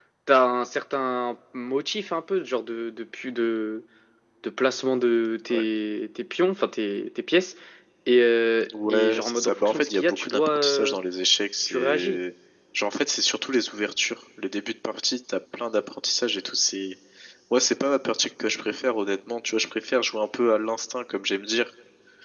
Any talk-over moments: Yes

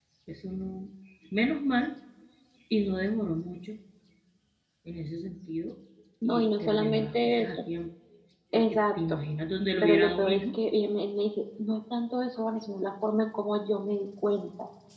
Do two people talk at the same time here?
Yes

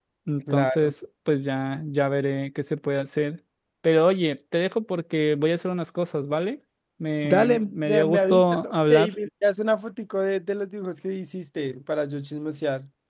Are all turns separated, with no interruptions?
No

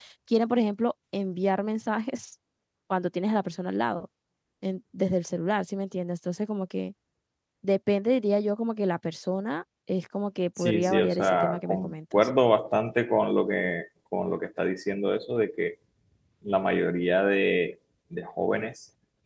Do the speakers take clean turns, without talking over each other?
No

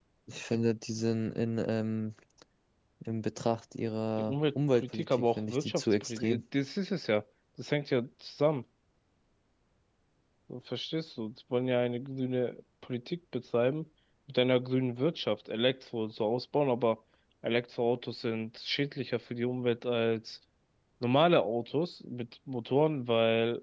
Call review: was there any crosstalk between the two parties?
Yes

